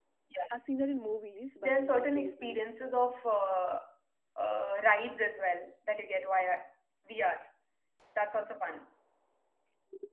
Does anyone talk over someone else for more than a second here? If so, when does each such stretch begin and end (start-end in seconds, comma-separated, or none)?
1.6-2.9